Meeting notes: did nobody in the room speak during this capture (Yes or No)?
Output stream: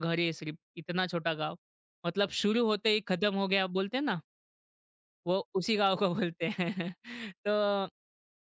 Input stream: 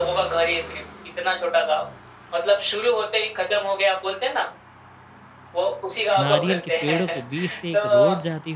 No